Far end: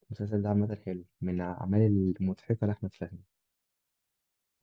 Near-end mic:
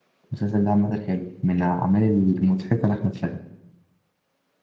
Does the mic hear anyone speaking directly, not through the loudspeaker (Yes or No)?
No